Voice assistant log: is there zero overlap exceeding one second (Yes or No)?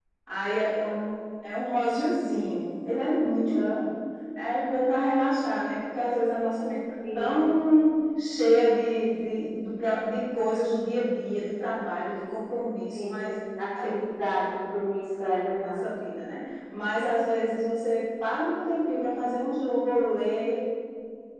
Yes